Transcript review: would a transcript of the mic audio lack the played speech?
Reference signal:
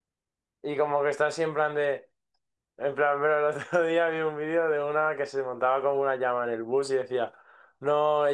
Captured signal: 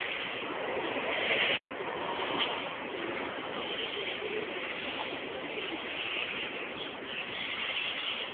Yes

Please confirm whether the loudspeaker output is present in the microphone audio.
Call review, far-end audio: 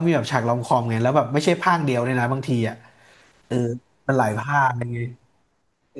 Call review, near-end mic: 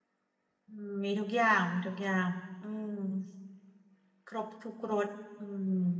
No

